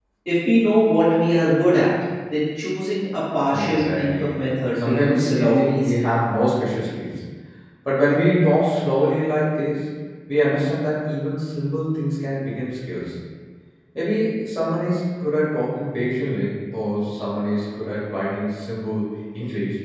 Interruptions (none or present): present